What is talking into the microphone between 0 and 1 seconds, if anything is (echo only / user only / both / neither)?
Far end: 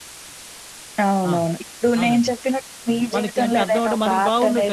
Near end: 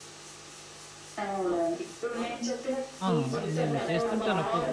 neither